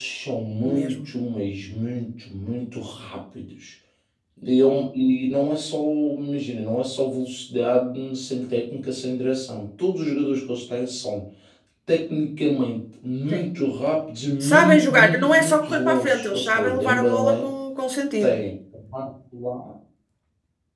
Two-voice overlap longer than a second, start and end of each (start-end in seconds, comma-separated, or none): 14.4-17.4